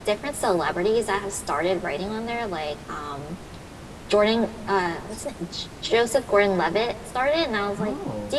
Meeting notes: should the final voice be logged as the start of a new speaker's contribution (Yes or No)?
No